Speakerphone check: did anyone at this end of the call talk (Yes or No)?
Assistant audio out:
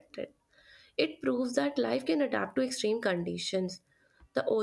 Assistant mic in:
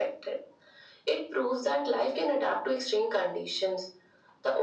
No